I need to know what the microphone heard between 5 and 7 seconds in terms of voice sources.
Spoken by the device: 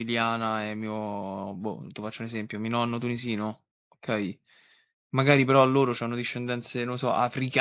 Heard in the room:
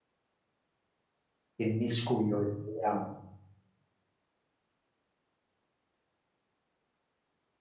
neither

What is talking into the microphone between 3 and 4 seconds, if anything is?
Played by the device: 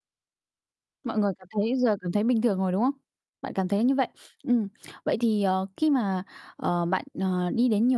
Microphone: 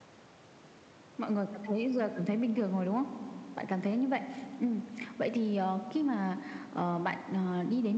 echo only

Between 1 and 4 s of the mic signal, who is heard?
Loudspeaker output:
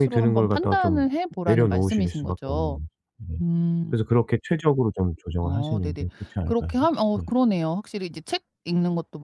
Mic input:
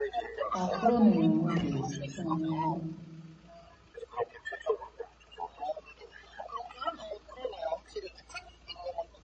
both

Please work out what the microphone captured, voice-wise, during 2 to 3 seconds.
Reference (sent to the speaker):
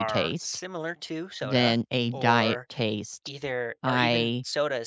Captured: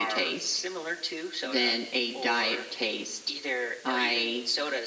echo only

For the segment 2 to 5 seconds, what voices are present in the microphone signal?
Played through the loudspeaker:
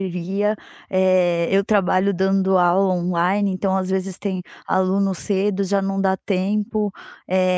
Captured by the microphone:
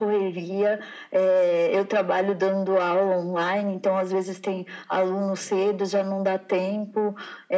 echo only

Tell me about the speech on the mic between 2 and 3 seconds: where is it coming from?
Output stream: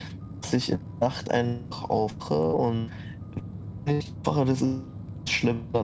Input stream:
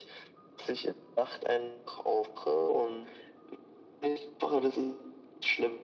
echo only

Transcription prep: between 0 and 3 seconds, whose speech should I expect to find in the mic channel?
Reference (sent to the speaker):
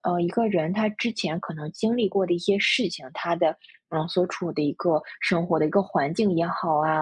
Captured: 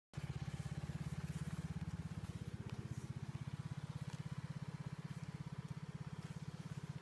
neither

